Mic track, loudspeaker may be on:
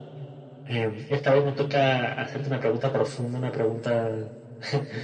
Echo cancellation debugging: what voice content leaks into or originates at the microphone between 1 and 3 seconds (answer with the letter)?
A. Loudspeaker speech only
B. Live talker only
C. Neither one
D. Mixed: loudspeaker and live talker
A